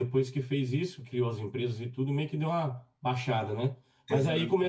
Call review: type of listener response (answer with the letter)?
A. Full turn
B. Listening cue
B